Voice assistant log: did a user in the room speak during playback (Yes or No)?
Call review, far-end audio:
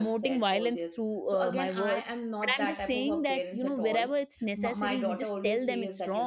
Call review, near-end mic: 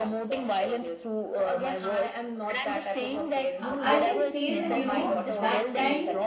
Yes